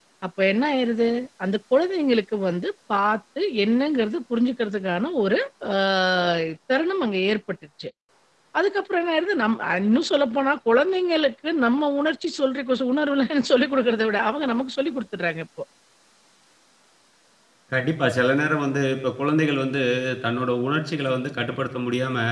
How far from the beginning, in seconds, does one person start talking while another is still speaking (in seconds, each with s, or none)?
none